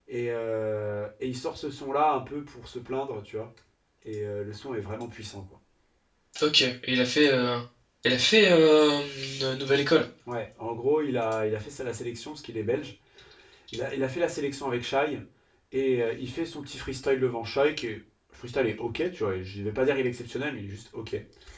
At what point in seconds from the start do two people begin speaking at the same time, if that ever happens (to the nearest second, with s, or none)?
none